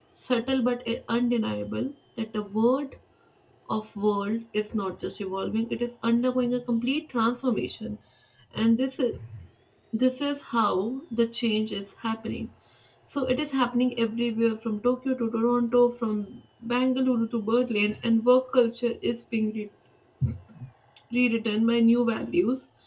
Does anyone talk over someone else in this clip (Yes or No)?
No